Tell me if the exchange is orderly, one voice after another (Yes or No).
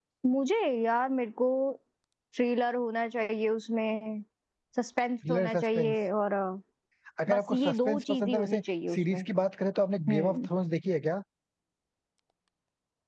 No